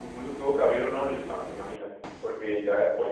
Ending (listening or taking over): listening